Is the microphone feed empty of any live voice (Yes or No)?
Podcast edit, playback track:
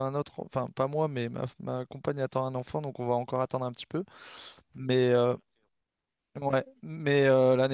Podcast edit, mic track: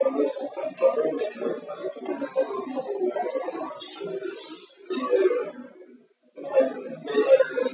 Yes